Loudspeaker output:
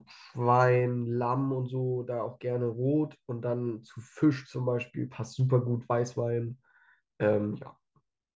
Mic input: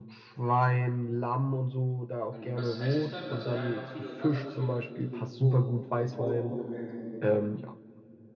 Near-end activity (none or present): present